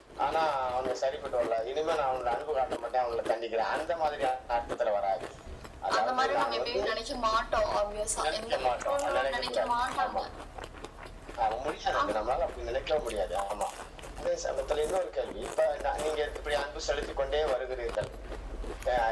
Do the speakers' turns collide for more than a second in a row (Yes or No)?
Yes